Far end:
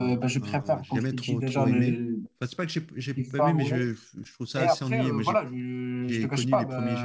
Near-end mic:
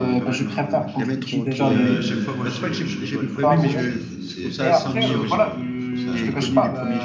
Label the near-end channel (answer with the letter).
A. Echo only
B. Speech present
B